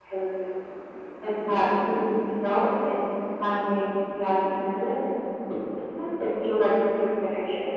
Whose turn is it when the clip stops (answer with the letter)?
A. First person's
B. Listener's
A